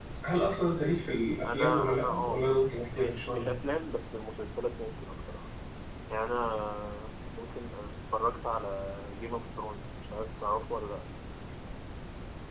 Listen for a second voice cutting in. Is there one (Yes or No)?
Yes